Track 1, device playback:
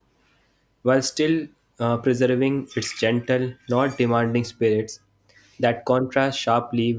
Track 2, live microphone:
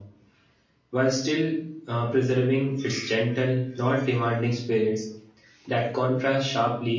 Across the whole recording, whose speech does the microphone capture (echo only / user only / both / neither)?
echo only